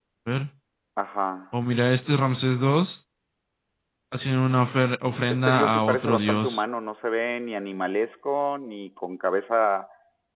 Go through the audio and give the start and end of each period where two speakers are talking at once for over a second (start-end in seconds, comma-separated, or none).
5.3-6.6